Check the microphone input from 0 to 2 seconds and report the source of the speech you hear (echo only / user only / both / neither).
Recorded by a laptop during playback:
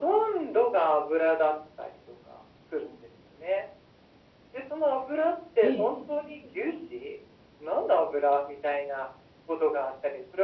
echo only